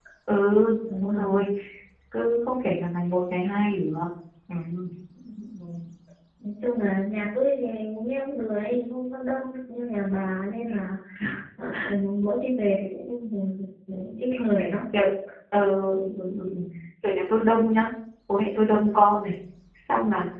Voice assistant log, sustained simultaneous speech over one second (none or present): none